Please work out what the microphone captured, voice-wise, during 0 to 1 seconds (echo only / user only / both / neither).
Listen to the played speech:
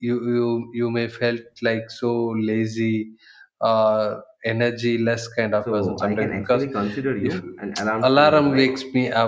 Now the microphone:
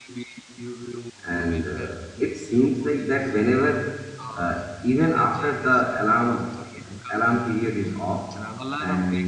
echo only